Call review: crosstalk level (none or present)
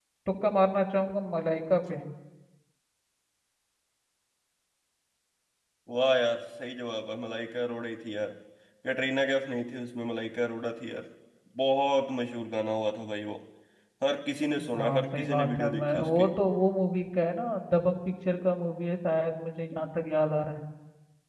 present